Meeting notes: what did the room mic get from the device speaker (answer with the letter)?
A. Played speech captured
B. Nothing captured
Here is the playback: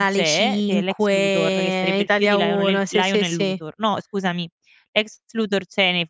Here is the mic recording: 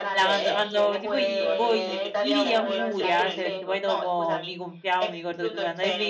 A